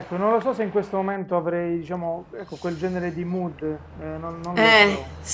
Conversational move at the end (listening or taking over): taking over